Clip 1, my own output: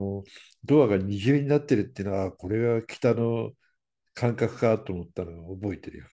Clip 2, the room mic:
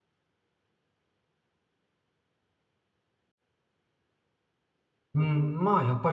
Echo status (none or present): none